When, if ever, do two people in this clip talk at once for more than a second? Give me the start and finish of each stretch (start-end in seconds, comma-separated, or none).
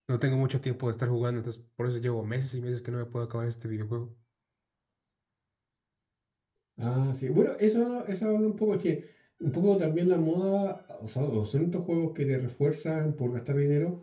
none